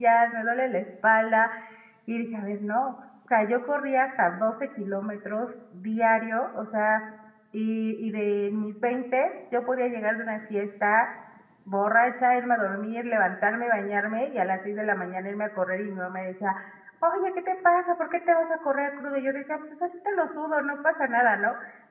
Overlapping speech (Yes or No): No